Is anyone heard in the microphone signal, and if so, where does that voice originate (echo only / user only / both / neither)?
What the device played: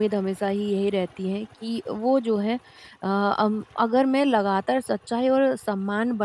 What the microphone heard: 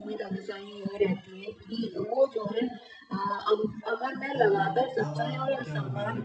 both